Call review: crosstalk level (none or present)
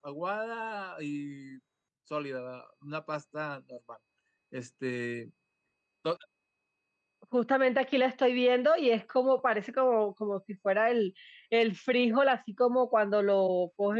none